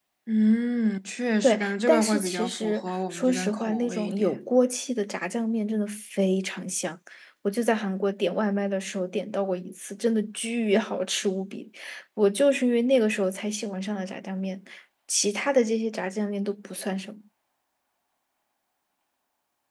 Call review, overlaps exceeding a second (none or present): present